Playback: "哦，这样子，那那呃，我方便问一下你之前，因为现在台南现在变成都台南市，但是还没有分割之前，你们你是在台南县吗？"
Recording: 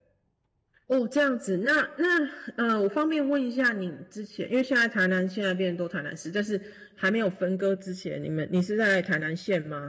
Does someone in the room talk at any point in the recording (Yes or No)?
No